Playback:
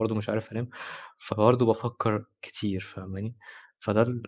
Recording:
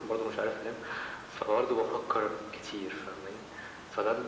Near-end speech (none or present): none